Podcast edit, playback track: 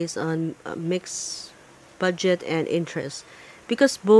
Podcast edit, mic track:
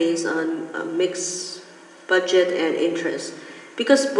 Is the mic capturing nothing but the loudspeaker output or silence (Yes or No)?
Yes